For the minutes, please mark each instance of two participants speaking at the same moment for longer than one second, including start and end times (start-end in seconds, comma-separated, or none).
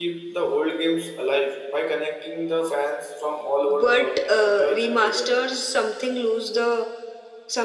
3.7-5.4